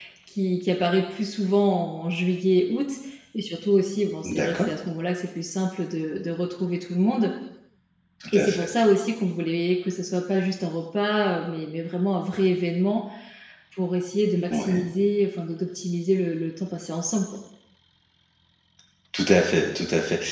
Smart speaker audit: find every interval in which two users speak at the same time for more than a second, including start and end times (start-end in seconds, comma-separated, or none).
none